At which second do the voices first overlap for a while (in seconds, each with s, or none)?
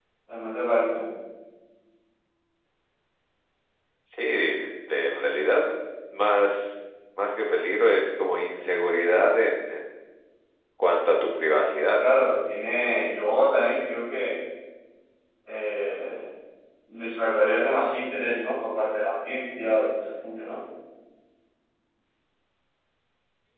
none